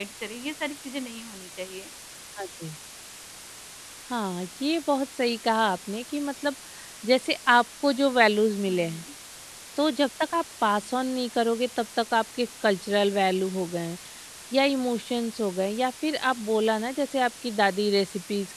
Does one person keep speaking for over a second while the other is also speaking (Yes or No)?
No